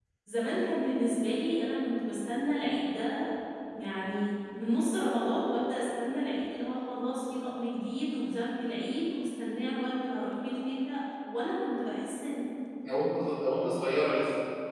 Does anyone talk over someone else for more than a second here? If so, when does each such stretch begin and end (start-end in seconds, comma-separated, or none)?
none